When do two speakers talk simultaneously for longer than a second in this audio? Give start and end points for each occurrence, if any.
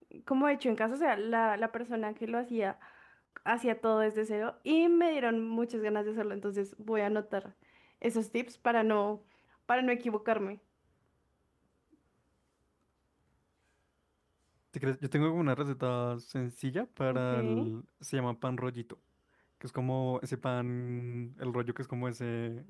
none

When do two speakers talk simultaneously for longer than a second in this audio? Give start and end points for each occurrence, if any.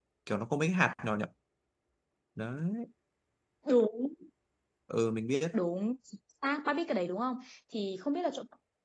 none

